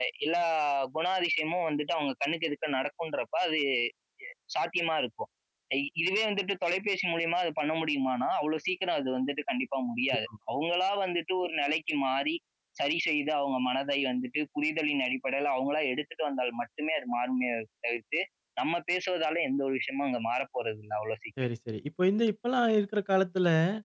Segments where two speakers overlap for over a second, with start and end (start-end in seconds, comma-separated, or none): none